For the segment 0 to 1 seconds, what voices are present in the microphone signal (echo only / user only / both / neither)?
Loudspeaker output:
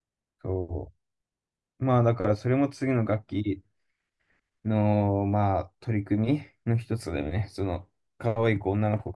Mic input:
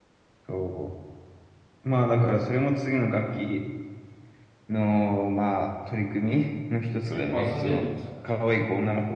echo only